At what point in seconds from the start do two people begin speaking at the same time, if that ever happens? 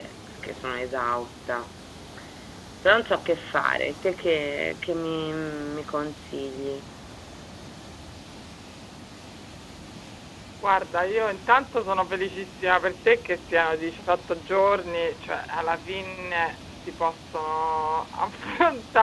none

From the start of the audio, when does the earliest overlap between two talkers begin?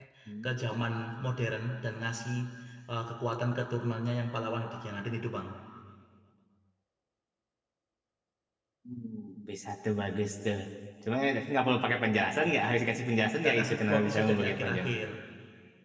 13 s

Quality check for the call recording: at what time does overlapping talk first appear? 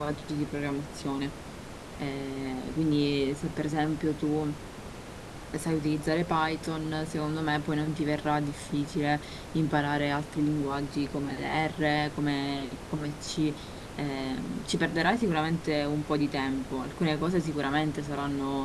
none

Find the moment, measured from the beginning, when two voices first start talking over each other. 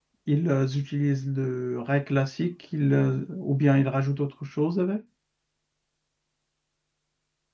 none

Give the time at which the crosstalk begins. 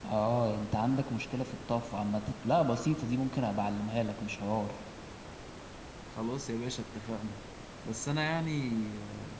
none

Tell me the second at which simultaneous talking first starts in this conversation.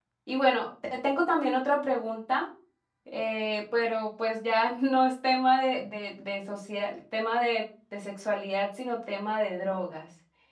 none

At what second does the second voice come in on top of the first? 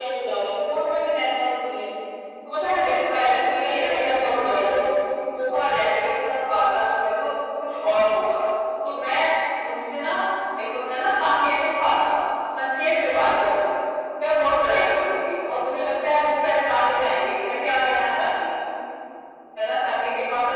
3 s

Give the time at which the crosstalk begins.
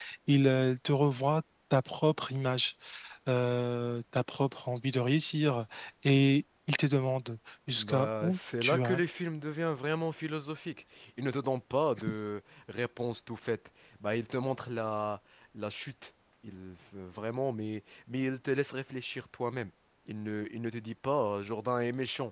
8 s

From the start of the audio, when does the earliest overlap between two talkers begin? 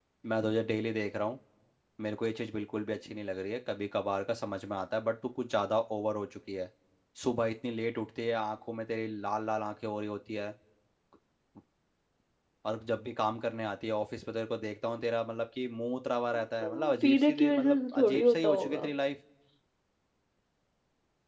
17 s

